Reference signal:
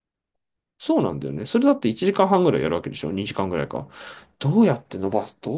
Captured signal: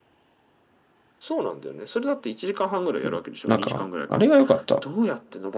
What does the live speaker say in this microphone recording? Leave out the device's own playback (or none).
うんなんか、あれが良かった。